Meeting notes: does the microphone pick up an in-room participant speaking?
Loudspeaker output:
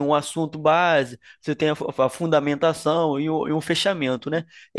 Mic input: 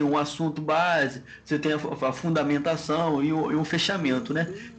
Yes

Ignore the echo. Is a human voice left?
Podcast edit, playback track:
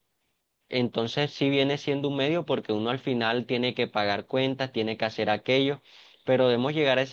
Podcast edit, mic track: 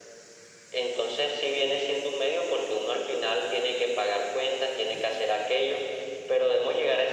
No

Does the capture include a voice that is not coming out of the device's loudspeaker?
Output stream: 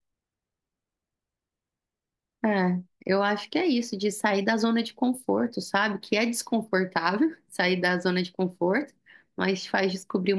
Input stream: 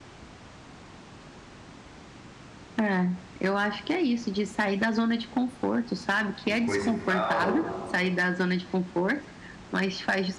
Yes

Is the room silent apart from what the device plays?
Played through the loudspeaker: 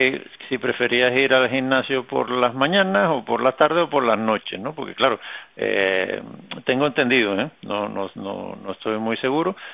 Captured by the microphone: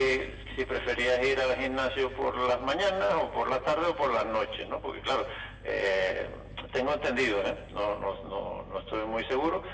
Yes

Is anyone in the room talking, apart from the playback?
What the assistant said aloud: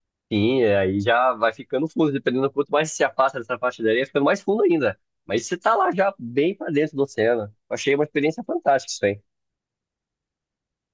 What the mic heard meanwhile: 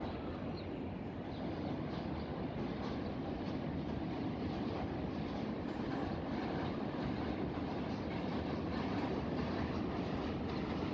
No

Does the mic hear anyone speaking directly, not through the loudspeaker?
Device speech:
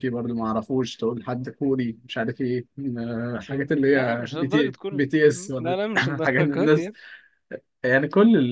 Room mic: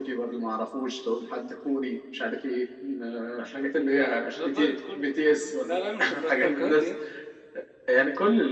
No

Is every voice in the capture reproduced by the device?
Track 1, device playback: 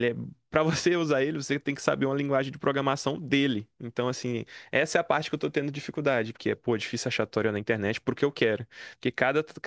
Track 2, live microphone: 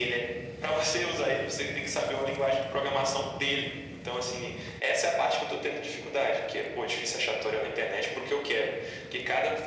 Yes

